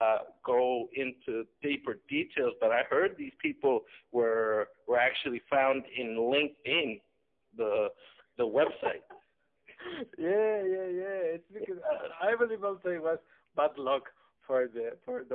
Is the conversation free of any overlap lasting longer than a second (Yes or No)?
Yes